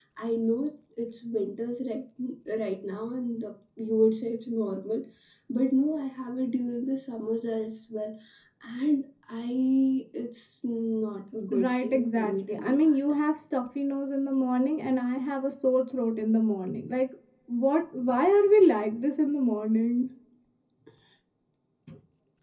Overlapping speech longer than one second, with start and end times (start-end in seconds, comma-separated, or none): 11.6-13.0